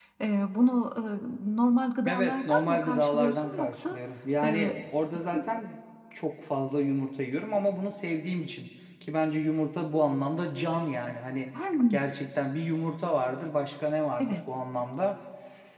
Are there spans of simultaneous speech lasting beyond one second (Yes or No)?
Yes